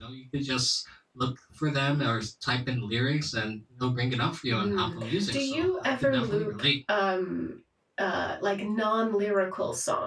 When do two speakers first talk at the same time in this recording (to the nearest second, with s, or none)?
4 s